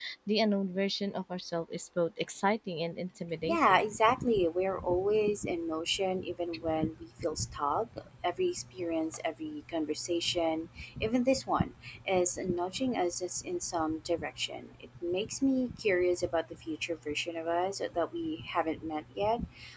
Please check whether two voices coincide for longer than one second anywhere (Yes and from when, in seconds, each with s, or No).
No